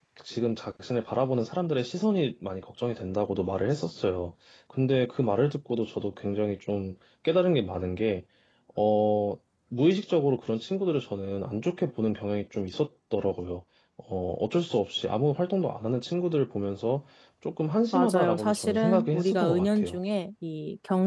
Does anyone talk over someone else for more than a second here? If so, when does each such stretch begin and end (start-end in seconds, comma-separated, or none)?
17.9-20.0